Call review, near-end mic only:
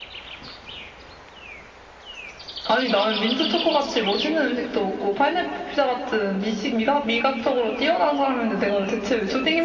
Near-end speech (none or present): none